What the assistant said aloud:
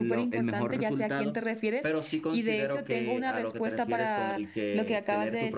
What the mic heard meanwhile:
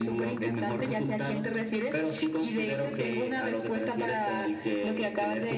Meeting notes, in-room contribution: none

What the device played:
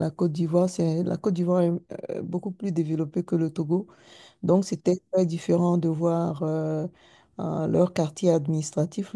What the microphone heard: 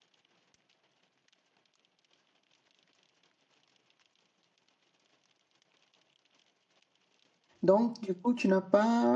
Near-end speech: present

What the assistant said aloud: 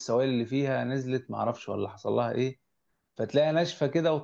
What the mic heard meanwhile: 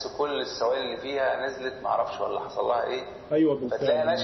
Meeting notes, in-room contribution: present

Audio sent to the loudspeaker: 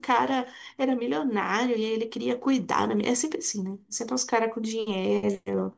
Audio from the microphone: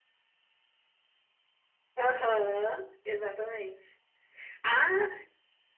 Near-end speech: present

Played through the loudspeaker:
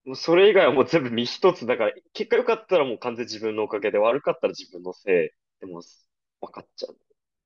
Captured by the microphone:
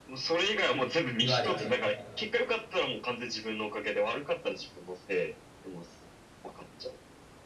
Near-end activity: present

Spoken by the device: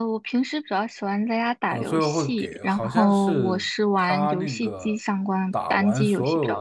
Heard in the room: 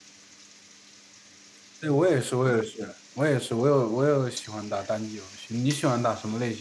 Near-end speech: present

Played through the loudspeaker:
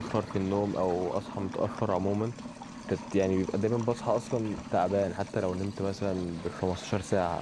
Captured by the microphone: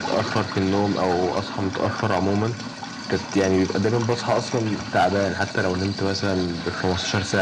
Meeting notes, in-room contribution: none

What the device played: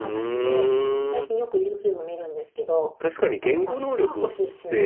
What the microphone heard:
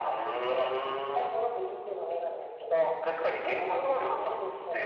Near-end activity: none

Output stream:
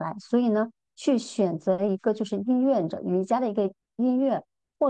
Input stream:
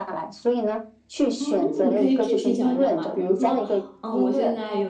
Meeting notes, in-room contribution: present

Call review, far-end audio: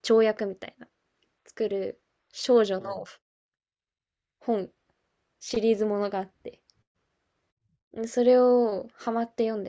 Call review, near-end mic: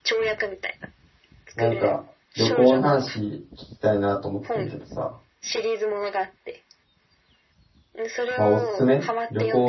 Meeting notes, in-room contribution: present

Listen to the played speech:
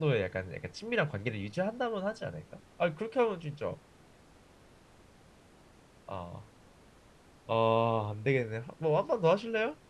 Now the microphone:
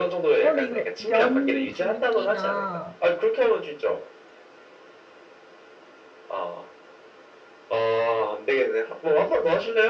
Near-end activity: present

